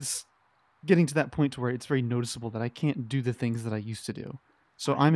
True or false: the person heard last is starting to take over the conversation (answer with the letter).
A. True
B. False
B